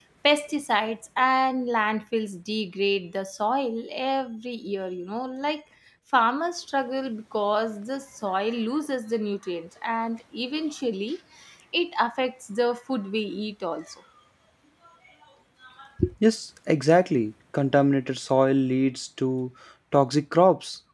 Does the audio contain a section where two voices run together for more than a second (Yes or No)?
No